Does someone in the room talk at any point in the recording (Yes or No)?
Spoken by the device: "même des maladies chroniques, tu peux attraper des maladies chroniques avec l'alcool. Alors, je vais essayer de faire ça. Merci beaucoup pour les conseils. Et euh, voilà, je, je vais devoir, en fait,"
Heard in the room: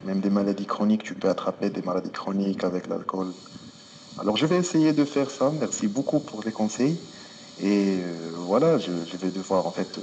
No